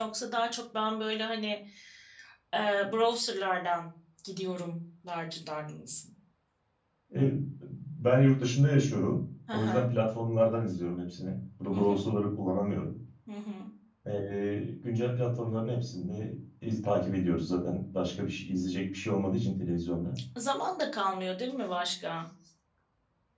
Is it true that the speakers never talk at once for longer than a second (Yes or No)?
Yes